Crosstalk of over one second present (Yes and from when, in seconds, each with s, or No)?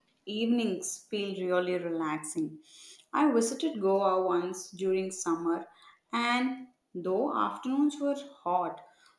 No